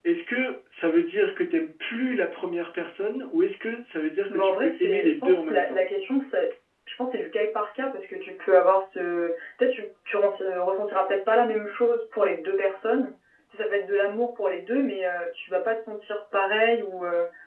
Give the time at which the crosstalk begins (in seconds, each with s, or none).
4.3 s